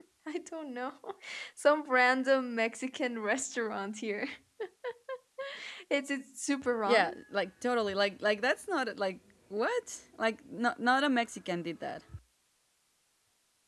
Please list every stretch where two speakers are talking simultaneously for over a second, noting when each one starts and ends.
none

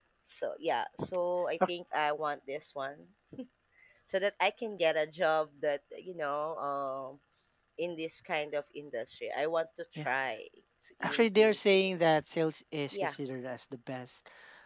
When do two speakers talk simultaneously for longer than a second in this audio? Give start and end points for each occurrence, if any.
11.0-12.2

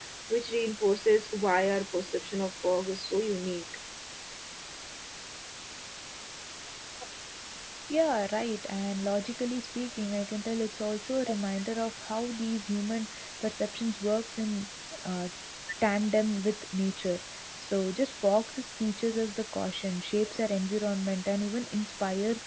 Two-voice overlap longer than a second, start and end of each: none

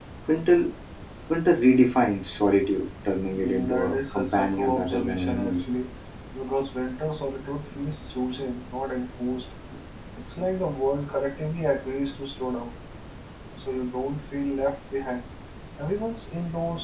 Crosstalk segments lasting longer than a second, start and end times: 3.3-5.7

